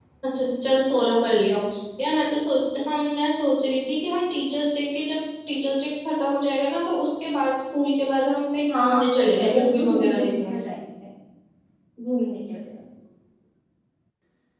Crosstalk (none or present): present